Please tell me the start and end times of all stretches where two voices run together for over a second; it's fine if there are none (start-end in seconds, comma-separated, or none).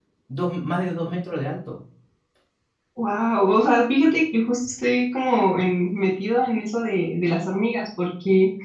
none